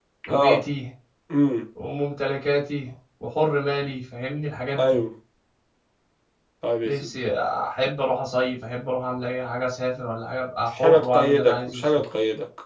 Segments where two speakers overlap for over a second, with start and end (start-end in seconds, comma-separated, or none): 10.7-11.9